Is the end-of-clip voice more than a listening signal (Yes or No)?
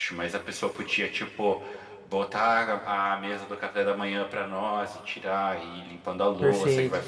No